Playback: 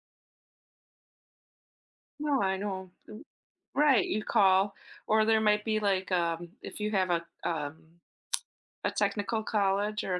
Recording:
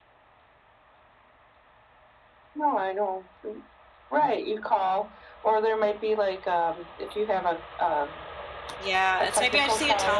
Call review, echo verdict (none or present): present